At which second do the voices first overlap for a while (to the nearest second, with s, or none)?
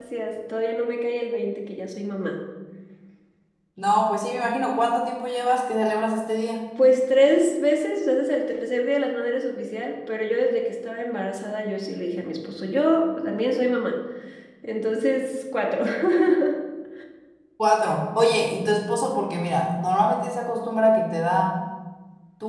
none